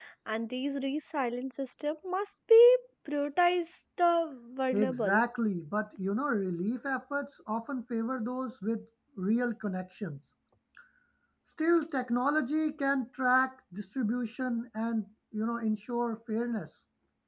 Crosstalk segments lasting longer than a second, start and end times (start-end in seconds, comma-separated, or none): none